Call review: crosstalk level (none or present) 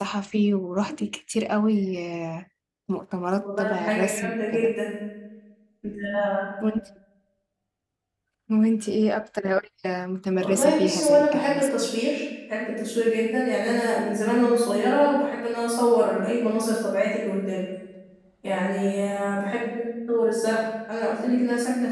present